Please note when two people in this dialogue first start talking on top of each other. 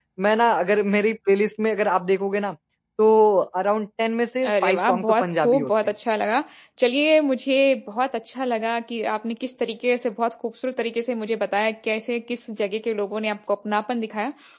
4.4 s

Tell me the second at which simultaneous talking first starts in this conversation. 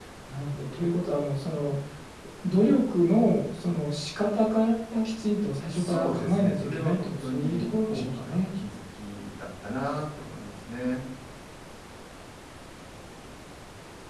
5.7 s

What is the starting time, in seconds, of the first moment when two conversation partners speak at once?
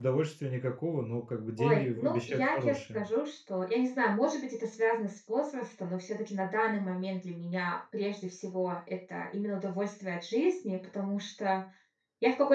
1.6 s

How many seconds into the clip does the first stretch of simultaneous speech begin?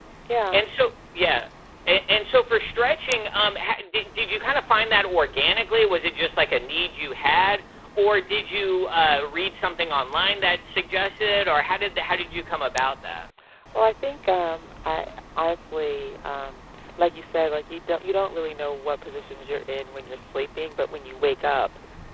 none

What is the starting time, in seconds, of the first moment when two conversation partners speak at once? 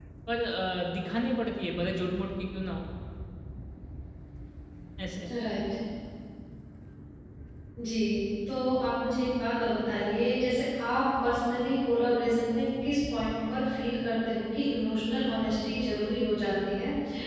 none

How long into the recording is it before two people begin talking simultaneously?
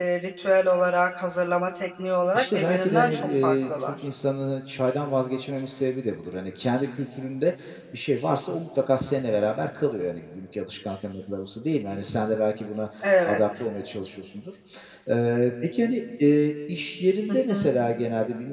2.3 s

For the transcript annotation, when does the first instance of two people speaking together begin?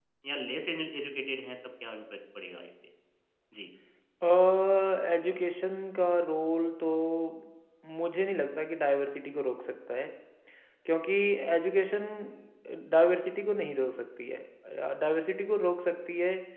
none

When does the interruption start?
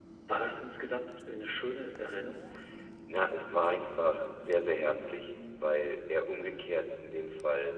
none

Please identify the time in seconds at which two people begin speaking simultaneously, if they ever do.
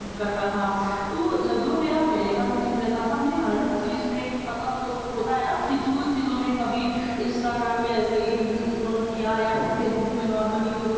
none

